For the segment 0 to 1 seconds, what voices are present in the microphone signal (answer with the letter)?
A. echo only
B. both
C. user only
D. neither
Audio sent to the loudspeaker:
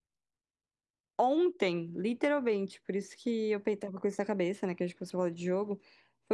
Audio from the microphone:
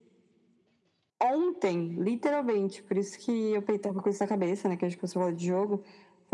D